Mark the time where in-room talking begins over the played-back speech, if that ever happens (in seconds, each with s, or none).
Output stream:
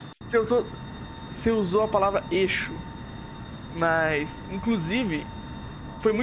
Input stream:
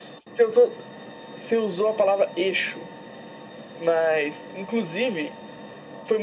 none